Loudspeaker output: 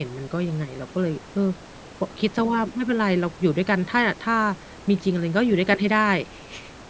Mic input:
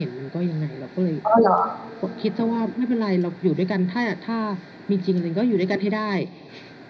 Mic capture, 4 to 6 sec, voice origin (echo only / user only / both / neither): echo only